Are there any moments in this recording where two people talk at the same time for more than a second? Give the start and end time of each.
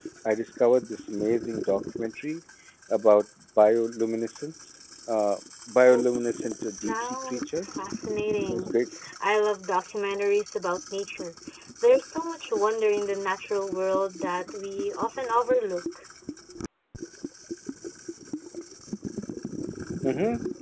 6.6-7.8

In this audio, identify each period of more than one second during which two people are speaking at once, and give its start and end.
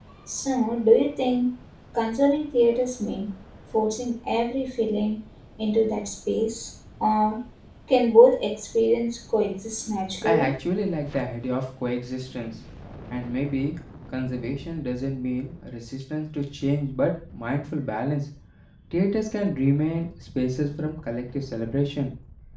none

